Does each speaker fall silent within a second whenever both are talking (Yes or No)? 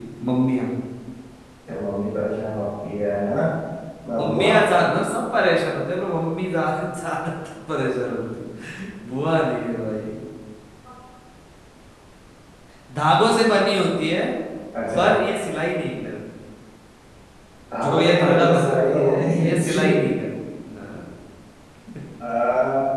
No